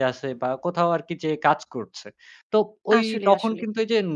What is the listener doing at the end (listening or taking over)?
listening